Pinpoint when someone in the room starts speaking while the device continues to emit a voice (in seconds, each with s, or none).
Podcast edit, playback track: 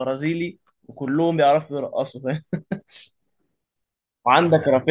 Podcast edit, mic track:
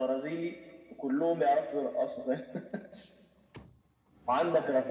none